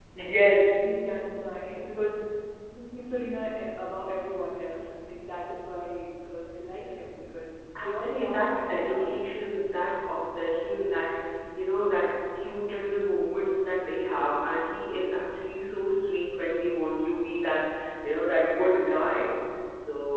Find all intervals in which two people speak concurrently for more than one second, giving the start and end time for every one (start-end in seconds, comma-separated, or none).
7.8-9.1